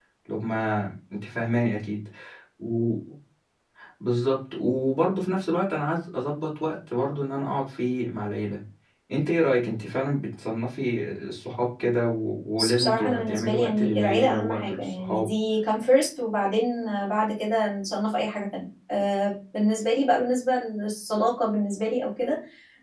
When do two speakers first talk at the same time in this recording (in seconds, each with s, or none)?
12.6 s